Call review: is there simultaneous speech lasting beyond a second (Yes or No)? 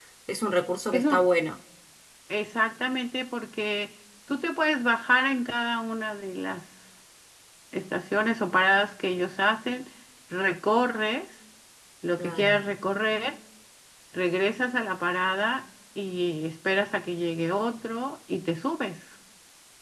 No